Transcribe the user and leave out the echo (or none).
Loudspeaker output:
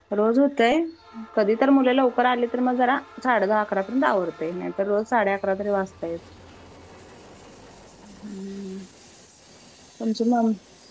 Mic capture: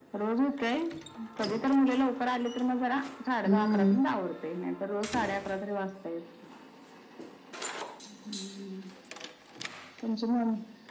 हम्म